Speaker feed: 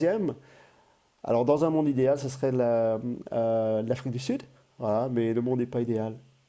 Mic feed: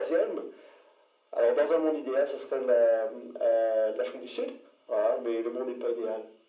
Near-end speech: none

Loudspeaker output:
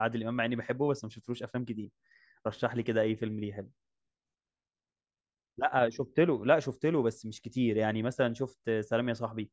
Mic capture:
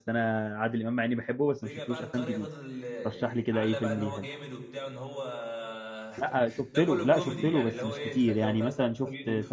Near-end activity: present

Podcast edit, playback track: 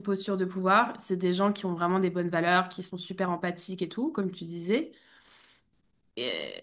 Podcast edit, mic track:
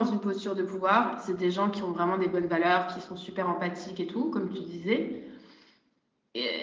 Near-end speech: none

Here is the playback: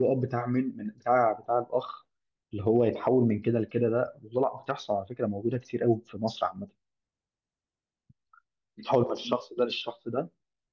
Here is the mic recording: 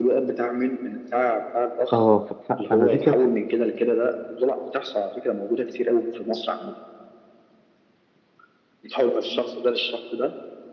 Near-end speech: present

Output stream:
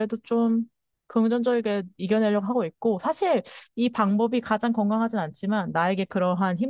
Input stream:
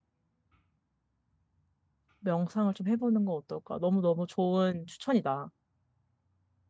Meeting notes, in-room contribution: present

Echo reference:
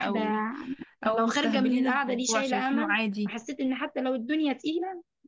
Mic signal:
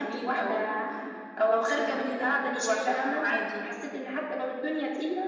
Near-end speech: none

